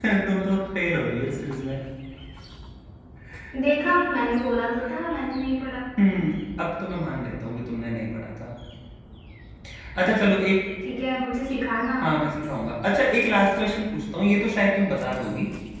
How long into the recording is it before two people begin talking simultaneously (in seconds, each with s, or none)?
none